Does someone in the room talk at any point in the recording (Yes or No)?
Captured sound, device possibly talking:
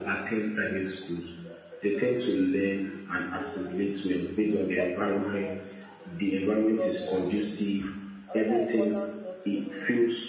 Yes